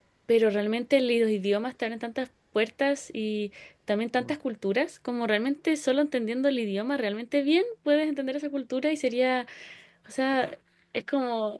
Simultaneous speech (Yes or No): No